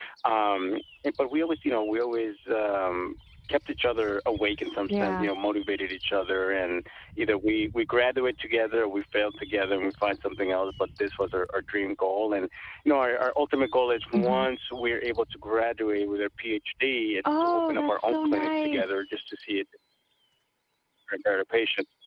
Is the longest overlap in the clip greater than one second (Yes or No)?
Yes